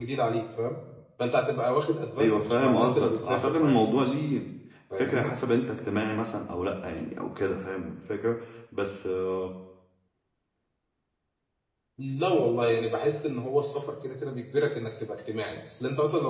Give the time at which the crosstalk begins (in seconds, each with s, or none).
2.2 s